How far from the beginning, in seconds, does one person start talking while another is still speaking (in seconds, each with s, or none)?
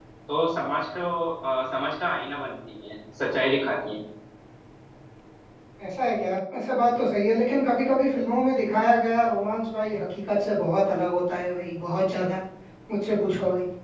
none